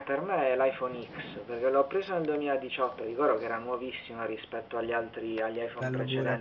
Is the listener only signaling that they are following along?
Yes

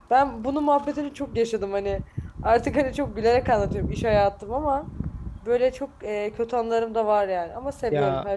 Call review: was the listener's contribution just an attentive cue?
No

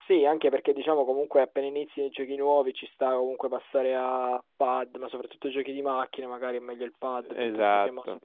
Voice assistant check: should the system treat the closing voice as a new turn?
No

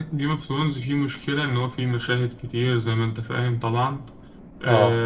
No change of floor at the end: Yes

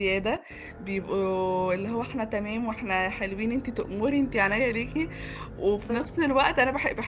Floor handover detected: No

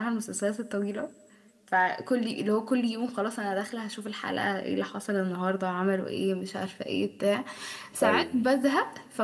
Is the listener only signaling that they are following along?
Yes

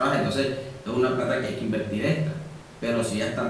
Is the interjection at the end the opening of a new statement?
No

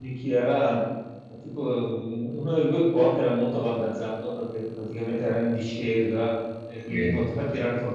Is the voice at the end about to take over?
No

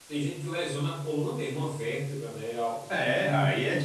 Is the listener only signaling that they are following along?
No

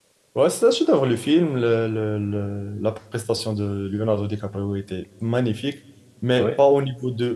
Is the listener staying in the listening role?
Yes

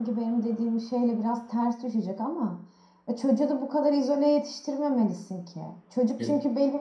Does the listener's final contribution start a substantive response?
No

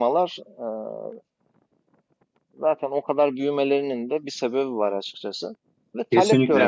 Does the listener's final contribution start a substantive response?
No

